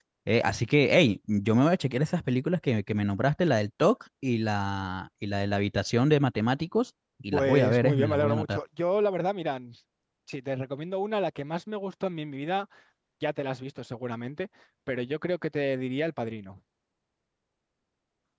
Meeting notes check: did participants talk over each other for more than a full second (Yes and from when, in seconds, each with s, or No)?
Yes, from 7.3 s